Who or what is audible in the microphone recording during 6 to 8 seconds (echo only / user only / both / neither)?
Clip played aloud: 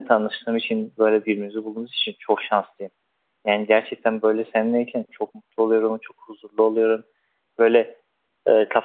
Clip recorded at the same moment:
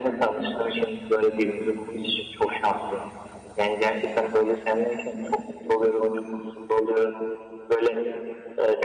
echo only